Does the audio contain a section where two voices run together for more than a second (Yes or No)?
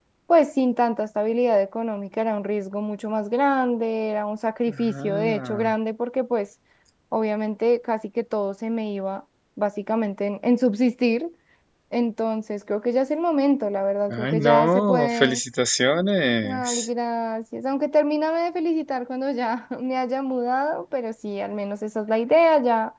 Yes